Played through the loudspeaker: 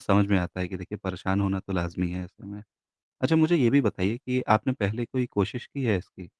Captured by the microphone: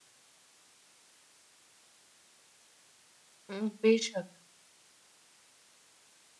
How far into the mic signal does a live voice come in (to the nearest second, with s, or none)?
3 s